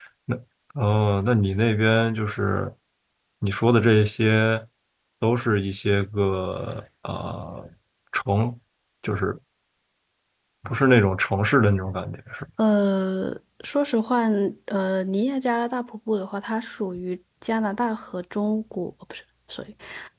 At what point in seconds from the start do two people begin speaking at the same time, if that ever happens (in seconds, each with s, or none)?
none